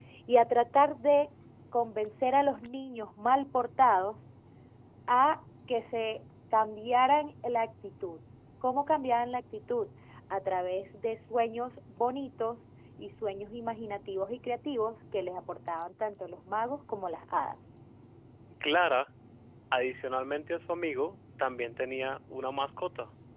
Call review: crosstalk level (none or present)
none